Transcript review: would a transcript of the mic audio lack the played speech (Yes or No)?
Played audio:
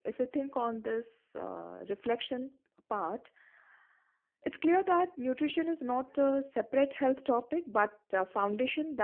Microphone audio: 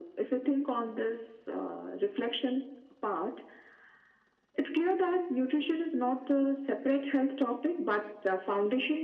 No